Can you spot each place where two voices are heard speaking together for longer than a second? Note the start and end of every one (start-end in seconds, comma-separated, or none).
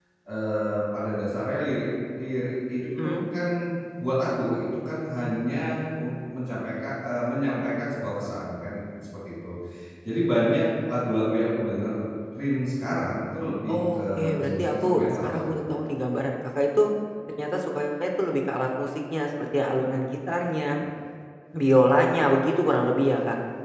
13.7-15.8